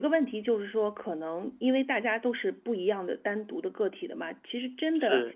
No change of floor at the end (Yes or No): Yes